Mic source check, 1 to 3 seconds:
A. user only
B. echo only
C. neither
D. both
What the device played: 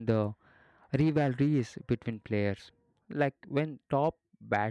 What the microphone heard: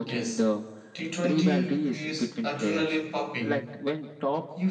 D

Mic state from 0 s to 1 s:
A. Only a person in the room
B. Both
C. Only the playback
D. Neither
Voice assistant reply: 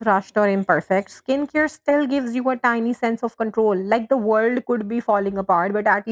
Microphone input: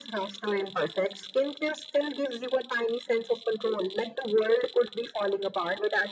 C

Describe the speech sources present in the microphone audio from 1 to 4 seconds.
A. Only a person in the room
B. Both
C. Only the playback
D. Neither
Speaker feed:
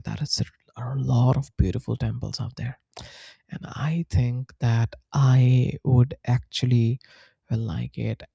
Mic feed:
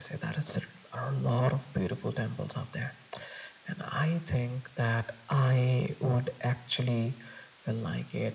C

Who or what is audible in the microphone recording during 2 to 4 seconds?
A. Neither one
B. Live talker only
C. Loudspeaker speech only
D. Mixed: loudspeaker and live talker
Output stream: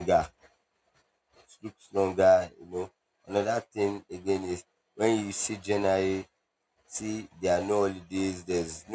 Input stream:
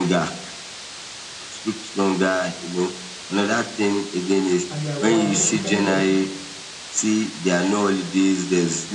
C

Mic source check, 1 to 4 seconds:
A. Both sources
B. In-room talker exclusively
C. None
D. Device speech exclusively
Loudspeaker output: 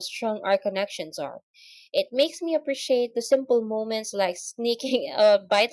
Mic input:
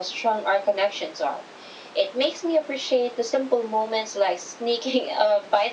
D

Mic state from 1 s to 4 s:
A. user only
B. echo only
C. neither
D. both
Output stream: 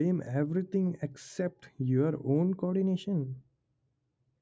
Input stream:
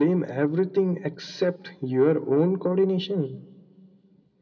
B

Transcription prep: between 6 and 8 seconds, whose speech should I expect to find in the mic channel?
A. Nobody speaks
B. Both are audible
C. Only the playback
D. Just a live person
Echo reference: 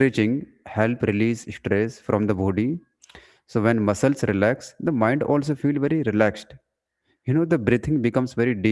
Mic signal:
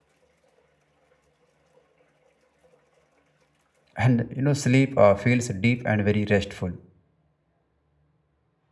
D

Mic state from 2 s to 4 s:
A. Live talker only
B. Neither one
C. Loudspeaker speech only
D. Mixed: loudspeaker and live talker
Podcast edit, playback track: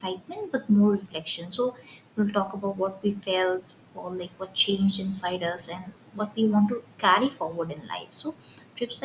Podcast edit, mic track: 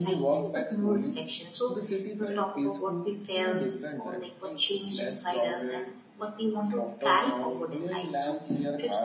D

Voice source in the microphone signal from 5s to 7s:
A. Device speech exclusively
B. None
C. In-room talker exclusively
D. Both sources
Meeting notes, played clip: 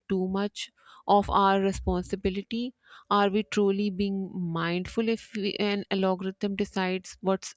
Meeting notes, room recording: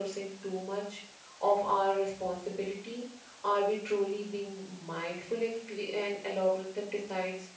A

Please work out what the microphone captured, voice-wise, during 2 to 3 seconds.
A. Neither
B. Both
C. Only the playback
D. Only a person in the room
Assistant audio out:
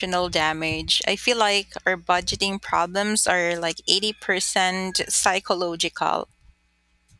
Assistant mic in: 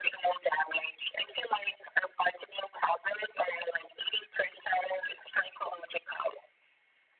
C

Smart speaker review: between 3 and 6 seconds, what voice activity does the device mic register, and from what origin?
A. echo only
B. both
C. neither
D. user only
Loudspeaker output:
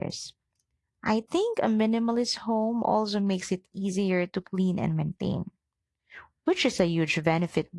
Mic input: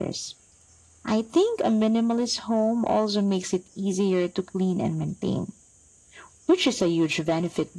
A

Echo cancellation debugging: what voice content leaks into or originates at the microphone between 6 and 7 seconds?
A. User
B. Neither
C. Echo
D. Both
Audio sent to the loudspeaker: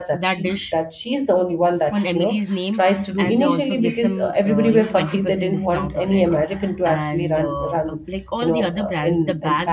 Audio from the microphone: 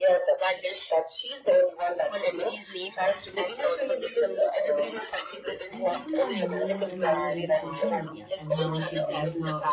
D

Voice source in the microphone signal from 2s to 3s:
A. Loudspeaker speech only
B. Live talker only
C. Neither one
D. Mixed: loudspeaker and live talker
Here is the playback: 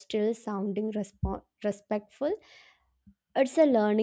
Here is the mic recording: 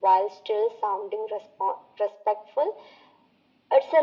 A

